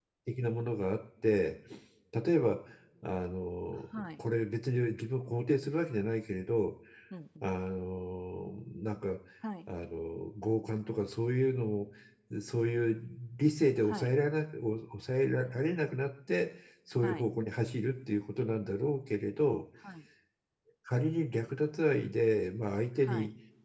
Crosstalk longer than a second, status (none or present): none